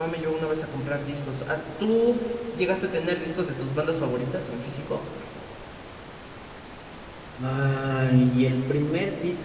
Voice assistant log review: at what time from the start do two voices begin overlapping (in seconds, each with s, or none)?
none